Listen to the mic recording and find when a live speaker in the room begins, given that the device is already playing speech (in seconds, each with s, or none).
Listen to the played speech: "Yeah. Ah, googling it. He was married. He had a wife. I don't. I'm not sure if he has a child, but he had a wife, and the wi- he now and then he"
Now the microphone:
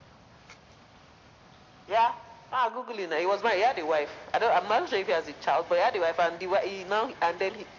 none